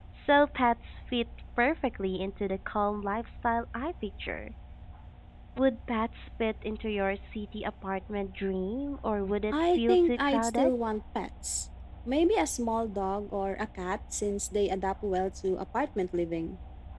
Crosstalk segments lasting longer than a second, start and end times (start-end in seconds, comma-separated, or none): 9.5-10.7